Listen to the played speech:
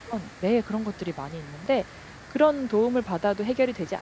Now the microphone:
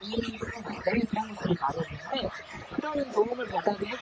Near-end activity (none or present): none